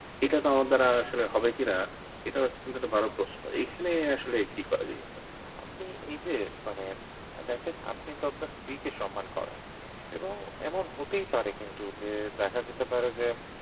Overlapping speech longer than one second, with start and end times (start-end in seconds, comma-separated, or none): none